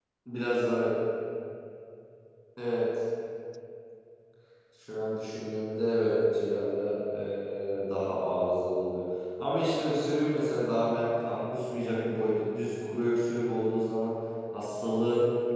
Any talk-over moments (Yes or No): No